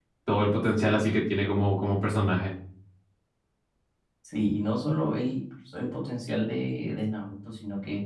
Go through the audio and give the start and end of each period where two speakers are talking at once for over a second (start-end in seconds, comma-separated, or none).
none